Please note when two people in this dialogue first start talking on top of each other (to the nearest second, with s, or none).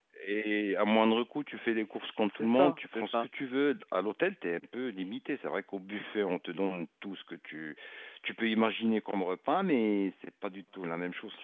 2 s